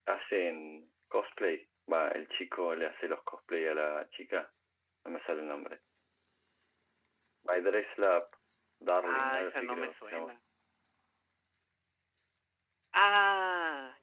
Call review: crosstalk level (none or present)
present